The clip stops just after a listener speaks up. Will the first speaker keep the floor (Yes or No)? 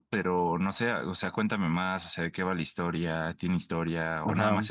Yes